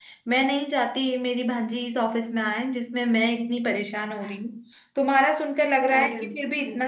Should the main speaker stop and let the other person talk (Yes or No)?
No